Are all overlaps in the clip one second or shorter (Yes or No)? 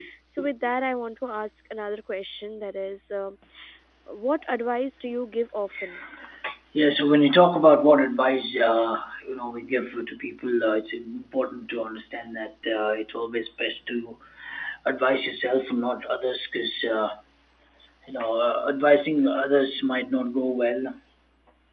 Yes